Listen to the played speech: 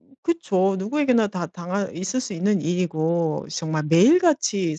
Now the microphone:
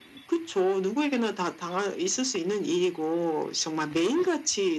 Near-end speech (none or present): none